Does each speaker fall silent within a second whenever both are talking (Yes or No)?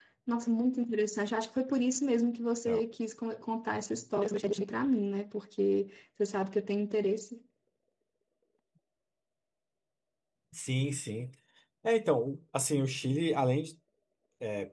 Yes